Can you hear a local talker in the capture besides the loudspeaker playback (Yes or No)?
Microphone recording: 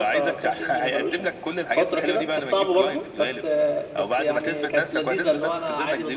Yes